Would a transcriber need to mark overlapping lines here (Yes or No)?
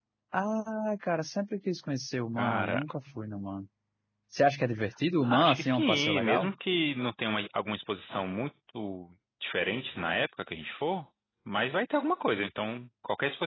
Yes